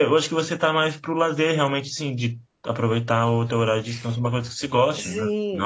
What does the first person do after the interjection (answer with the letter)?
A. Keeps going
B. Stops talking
B